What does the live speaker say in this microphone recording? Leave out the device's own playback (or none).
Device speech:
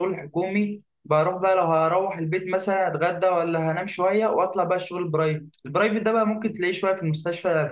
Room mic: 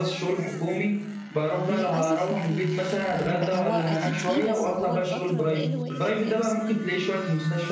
للأسف مفيش يعني بقى هو أكيد فيه بس هو الفترة بقاله واقف بقاله سنين